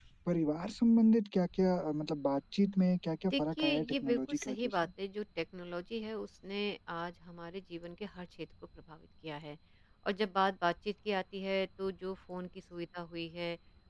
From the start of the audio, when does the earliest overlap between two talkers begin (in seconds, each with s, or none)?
3.2 s